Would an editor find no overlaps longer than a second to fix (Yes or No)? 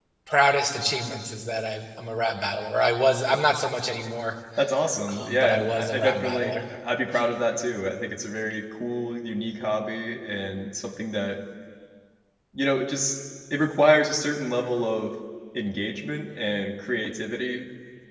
No